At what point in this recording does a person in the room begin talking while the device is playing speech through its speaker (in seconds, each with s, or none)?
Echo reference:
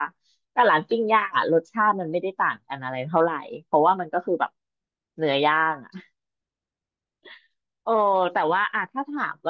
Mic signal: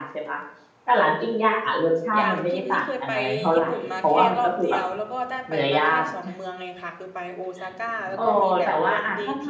2.1 s